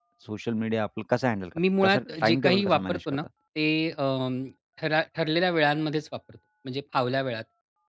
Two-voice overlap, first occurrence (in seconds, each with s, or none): 1.8 s